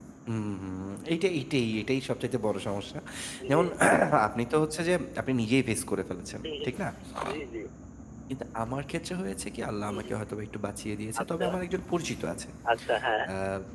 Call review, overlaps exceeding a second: none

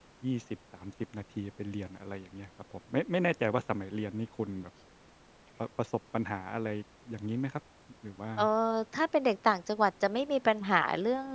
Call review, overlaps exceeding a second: none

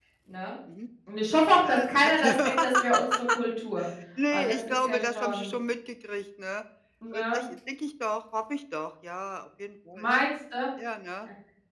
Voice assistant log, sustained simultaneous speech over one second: present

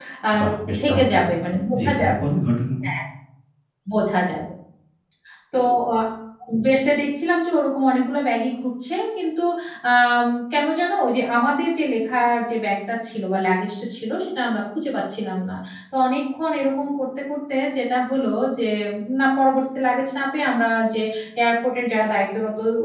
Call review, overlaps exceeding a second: none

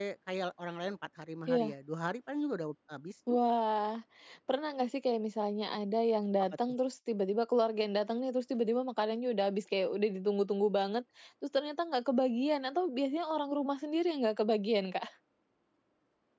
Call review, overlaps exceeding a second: none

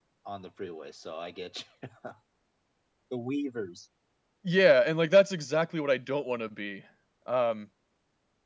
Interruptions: none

